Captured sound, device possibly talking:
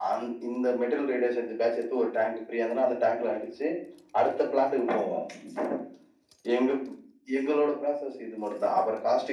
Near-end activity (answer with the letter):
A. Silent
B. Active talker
A